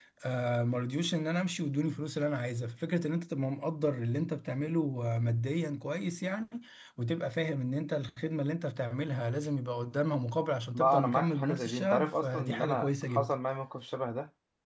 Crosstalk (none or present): present